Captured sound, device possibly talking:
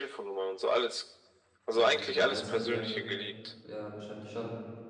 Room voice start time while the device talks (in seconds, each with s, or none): 1.7 s